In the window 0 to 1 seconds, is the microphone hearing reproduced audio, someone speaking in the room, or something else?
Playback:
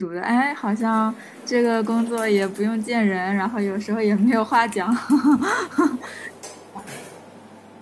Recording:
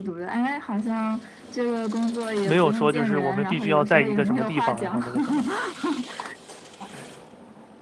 echo only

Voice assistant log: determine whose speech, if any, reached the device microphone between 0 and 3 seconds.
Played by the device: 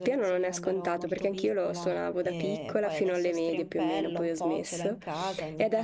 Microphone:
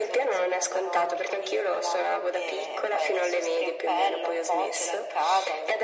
echo only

